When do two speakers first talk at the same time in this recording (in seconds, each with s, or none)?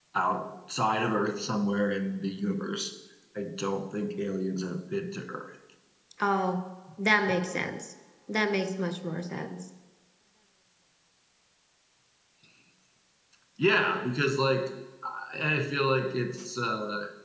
none